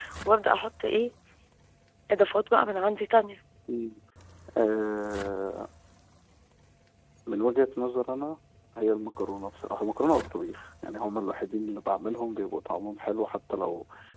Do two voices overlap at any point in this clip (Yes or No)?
No